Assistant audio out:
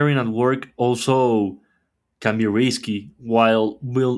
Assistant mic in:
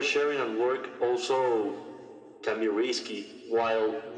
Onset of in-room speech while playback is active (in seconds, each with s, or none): none